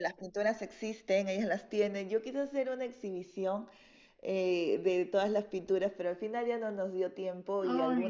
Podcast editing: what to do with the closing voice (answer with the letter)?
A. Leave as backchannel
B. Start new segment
A